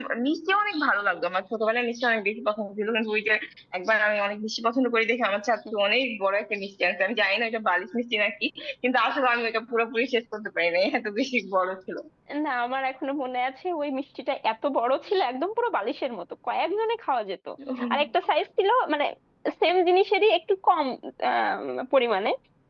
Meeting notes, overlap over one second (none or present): none